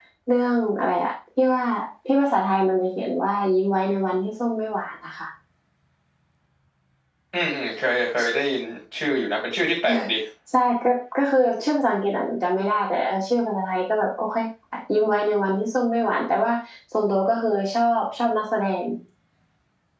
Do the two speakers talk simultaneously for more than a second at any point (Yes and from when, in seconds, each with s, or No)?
No